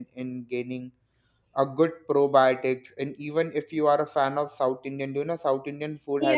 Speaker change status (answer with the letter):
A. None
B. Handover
B